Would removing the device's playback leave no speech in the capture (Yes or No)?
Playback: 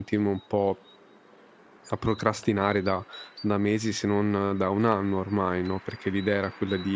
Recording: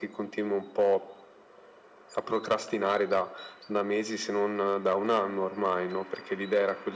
Yes